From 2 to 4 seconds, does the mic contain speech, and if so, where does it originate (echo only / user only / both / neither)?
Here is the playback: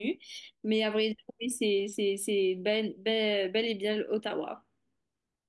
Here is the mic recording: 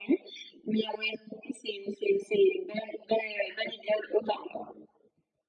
echo only